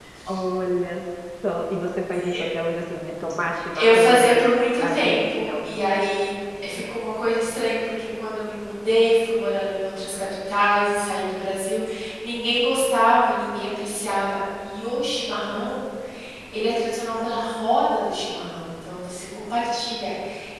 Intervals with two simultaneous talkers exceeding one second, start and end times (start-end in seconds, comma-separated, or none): 3.7-6.2